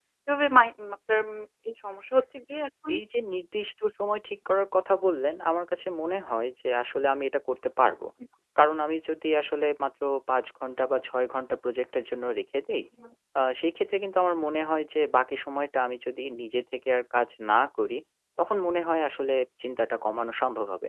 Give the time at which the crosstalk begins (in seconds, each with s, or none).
none